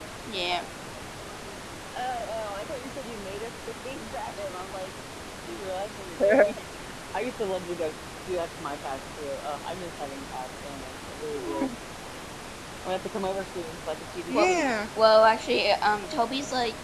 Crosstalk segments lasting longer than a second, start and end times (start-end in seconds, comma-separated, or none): none